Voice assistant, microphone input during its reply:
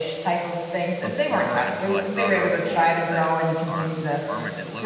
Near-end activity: present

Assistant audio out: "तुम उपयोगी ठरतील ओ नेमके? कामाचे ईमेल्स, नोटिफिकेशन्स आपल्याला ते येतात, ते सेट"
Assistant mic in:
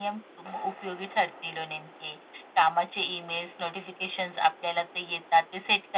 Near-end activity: none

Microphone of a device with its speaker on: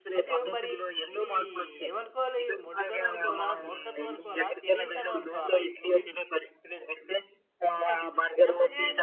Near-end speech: present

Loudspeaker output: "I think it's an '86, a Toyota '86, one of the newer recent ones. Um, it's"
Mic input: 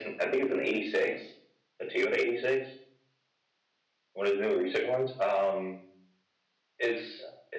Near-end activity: none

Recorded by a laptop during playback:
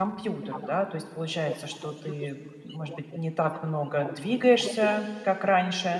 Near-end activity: present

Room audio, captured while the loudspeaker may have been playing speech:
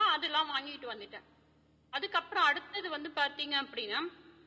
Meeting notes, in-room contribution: none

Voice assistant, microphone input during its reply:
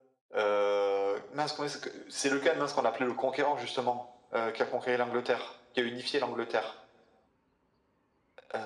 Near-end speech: none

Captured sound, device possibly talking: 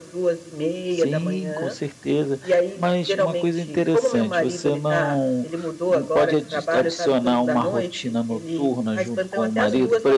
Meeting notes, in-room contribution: present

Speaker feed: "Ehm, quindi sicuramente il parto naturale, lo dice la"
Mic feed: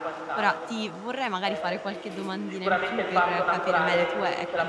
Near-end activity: present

